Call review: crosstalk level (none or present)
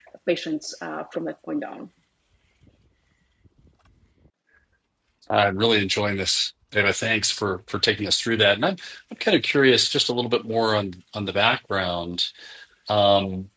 none